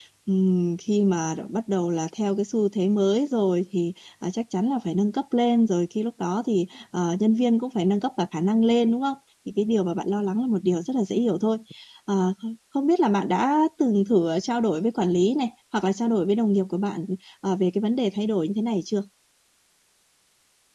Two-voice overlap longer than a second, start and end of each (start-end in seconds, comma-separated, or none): none